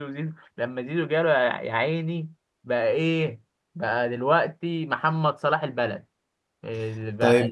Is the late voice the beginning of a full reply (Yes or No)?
Yes